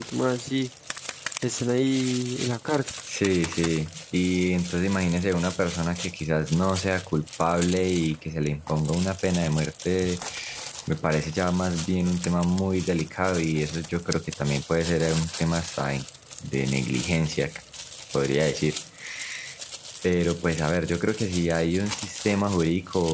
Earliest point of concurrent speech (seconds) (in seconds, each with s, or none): none